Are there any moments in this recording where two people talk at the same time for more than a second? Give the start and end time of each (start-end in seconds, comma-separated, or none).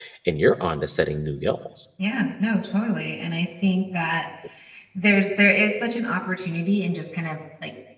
none